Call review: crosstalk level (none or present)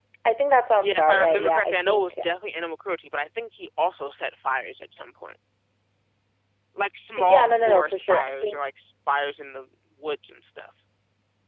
present